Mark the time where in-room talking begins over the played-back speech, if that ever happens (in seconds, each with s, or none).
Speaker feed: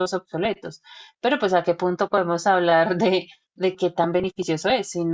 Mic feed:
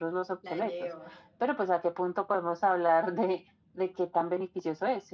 0.4 s